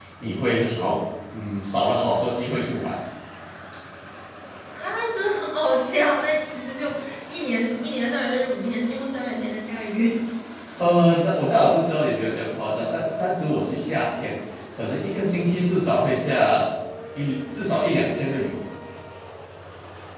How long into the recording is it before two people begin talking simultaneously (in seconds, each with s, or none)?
none